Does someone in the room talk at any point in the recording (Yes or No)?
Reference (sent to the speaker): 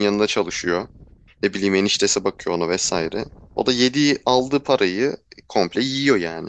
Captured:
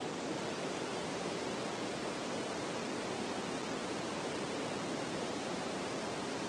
No